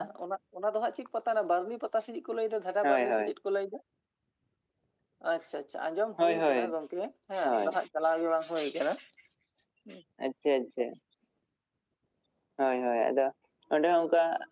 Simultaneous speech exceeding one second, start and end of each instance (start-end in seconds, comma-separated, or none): none